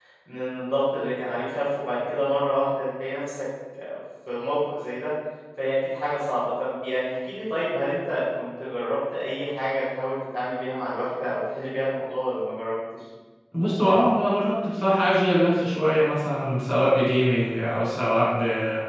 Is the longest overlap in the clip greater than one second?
No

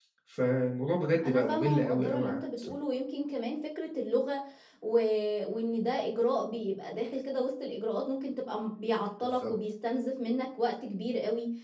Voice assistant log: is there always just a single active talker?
No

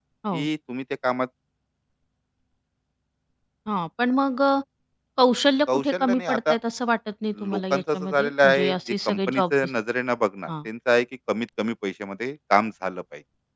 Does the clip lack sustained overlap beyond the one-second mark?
No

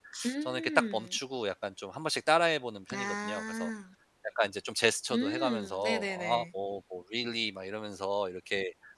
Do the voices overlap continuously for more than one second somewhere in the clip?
Yes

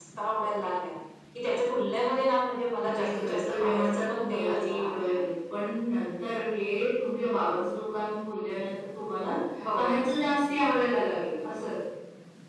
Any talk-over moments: Yes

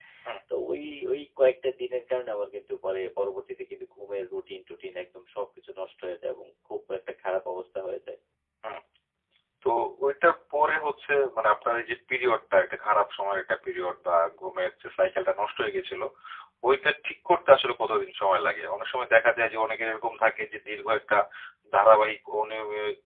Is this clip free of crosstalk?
Yes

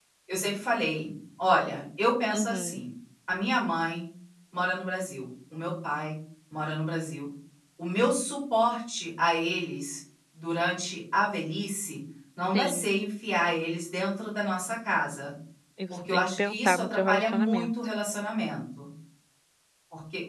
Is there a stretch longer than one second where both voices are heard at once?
Yes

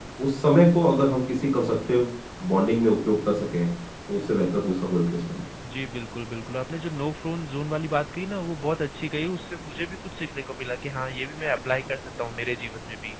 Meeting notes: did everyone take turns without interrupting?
Yes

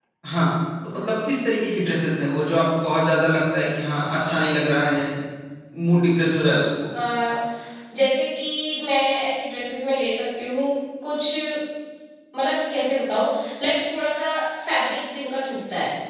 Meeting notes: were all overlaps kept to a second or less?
Yes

